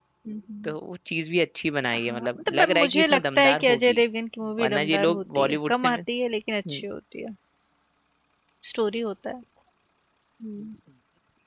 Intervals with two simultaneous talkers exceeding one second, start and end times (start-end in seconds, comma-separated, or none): 2.0-4.0, 4.6-6.0